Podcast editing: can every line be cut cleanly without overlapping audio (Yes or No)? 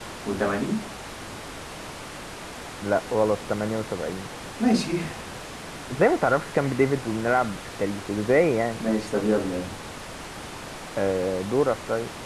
Yes